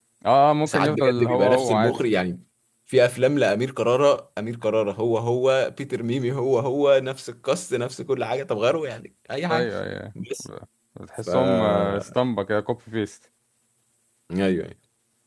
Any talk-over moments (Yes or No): Yes